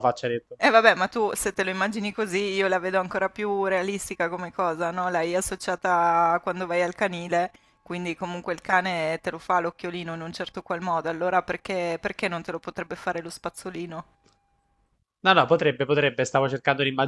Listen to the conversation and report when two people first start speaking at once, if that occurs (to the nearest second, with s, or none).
none